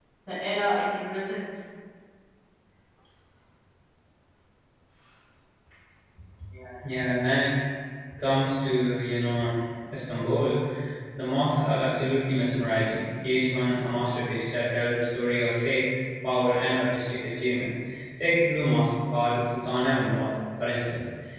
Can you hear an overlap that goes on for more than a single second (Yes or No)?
No